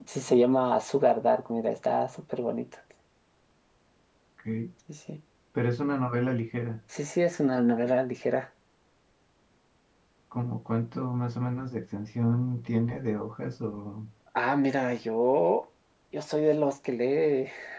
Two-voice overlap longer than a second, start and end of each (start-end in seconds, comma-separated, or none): none